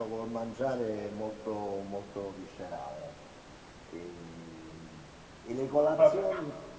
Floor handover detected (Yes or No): No